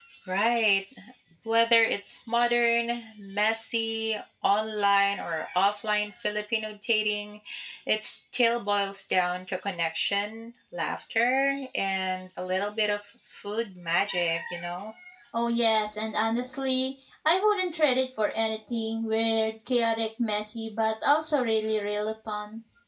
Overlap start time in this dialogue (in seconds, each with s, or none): none